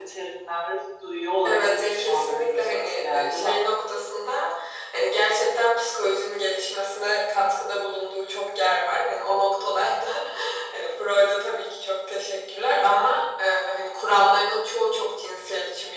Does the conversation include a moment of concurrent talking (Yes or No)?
Yes